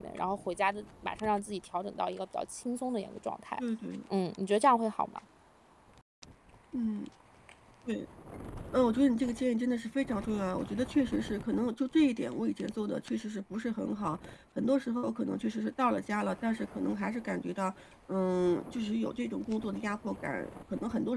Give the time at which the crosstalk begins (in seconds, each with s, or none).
none